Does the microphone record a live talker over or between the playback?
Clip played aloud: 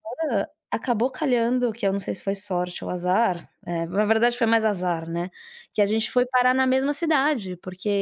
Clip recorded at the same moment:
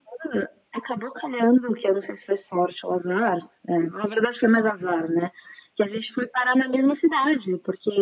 No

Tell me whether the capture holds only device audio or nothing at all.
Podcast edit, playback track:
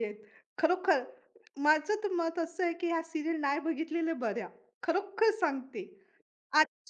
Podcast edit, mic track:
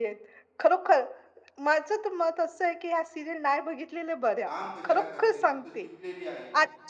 No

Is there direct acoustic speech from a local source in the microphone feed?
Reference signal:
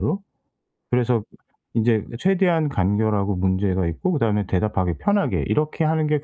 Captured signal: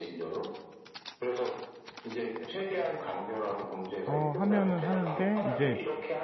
Yes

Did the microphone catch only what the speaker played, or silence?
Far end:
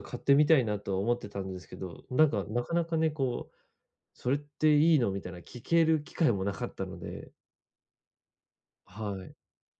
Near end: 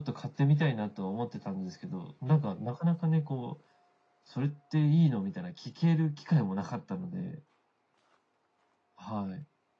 Yes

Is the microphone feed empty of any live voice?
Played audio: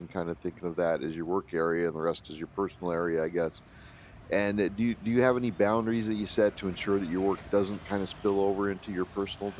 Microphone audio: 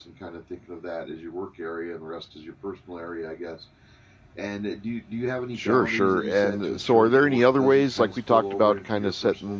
No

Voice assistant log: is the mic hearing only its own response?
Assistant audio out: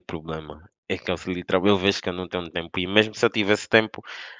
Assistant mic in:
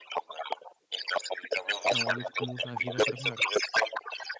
No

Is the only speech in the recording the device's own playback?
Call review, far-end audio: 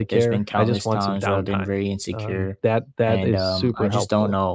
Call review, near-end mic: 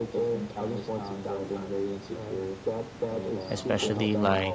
No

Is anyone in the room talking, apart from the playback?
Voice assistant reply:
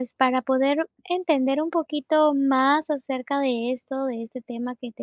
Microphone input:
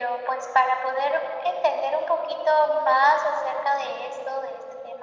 No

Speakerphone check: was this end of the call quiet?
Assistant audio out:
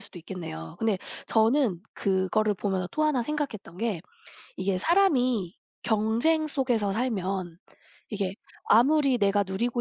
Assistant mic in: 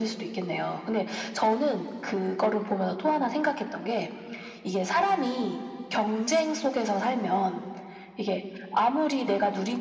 Yes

